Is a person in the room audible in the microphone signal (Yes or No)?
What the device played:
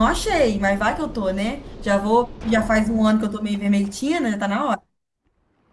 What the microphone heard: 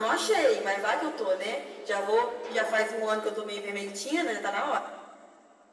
No